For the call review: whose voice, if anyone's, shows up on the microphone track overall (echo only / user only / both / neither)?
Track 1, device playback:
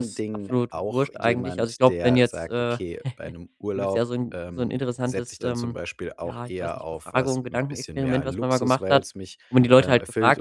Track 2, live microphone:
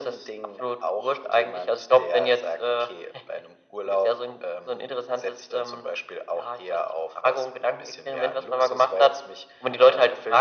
echo only